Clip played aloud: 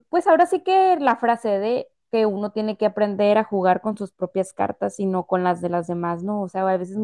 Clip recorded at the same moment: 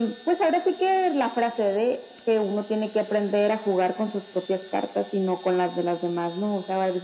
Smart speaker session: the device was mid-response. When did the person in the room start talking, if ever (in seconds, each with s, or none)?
none